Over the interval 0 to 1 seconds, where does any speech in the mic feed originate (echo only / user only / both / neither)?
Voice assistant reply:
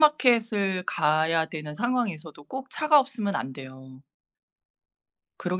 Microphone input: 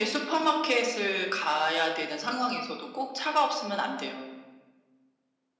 echo only